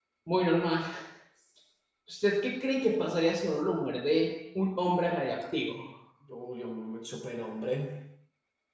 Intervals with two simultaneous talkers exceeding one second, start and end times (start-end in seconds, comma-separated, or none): none